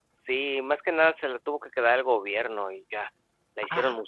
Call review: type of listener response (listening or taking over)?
taking over